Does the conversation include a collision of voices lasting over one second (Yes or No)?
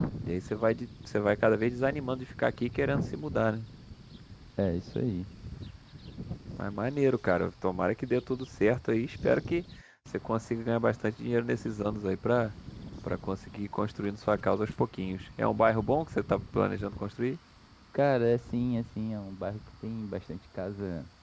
No